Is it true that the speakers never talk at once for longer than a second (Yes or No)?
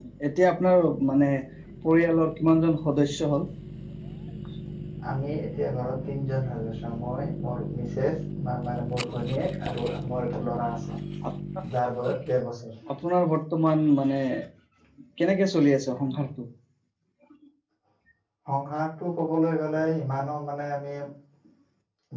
Yes